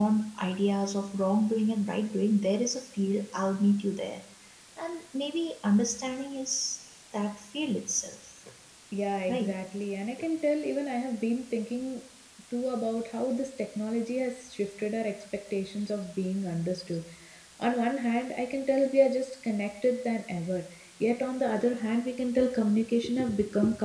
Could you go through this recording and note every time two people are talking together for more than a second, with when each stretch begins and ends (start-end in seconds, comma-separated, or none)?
none